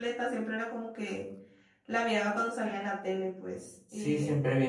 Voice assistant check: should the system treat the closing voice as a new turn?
Yes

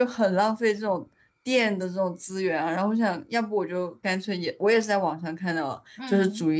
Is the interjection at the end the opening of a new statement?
No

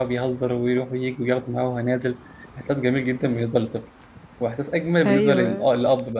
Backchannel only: Yes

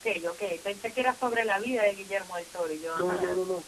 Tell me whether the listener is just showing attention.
No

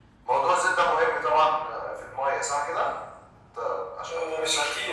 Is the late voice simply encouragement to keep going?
No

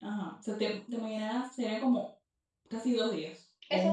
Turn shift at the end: Yes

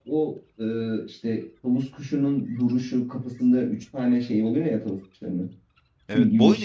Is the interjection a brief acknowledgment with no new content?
No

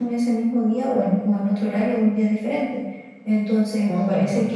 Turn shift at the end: No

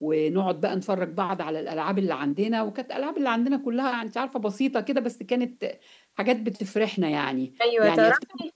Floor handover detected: Yes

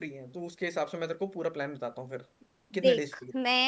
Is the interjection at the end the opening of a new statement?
Yes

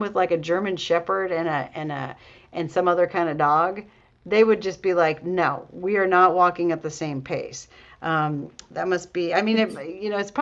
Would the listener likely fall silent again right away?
Yes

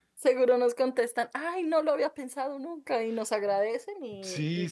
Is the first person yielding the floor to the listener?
Yes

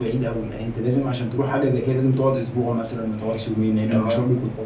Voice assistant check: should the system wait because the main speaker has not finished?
No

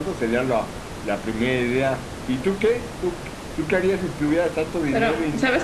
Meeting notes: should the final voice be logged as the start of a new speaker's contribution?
Yes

